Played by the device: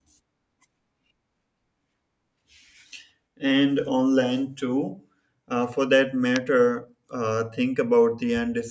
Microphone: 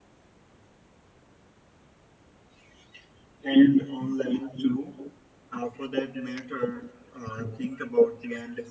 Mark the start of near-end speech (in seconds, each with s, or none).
none